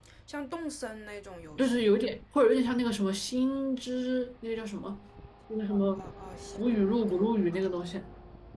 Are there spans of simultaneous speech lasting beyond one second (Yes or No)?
No